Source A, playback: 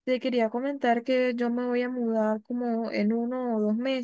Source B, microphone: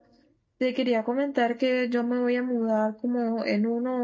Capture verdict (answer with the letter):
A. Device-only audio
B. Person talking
A